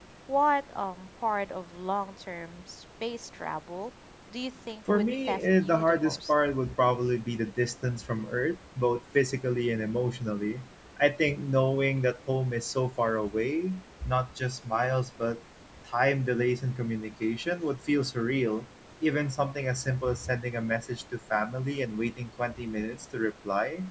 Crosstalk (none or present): present